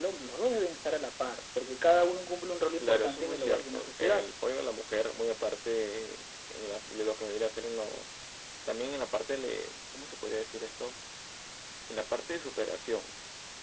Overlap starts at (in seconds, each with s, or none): 2.8 s